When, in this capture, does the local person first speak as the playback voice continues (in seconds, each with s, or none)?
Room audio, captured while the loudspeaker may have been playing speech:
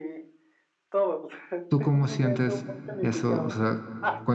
1.7 s